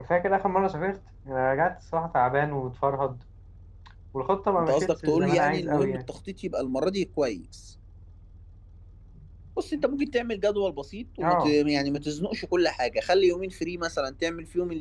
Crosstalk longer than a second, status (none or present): present